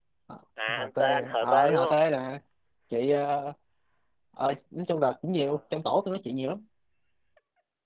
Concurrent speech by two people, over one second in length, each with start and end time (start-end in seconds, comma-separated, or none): 0.7-2.0